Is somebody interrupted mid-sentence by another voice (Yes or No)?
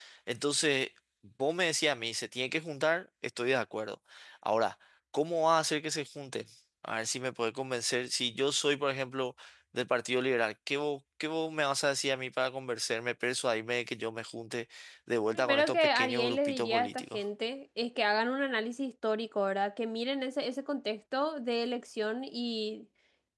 Yes